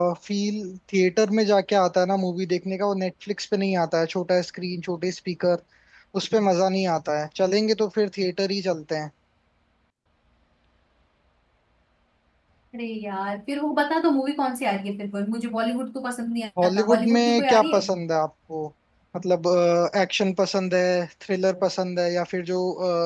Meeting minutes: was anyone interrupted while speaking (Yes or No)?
Yes